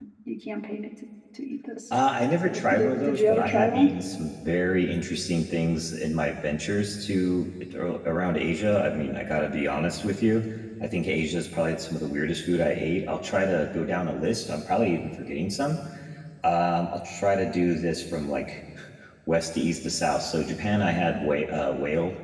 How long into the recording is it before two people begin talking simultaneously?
2 s

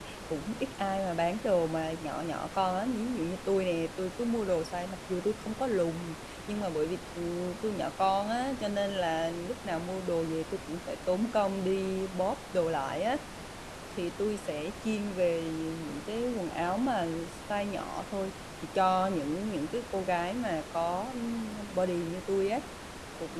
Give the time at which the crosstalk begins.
none

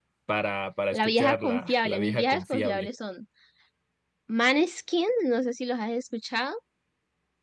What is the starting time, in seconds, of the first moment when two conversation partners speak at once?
1 s

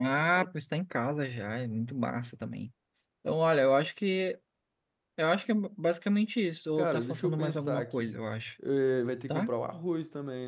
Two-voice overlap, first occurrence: 7 s

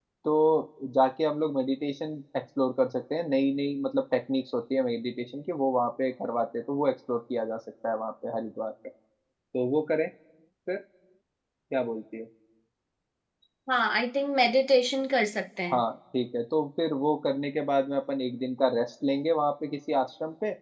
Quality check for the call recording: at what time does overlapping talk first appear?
none

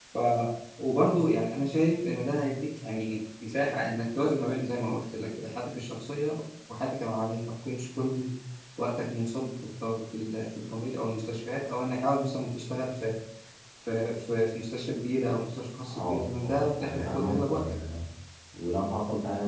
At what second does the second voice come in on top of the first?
16 s

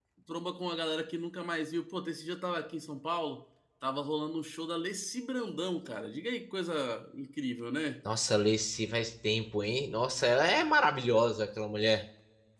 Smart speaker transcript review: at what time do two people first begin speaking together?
none

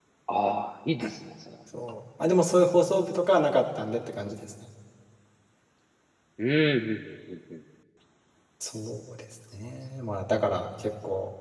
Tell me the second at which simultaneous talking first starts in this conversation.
none

